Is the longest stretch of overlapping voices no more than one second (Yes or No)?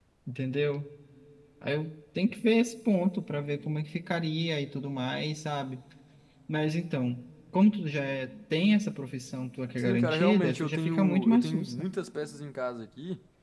No